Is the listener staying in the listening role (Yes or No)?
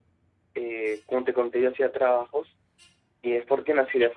Yes